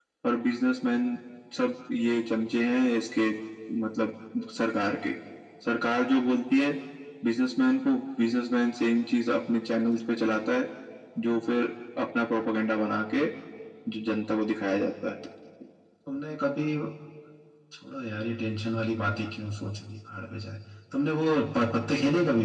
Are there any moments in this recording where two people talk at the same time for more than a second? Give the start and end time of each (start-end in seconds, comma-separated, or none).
none